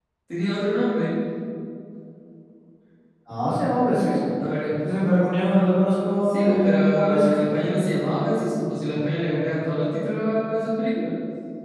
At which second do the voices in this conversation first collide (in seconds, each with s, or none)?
6.3 s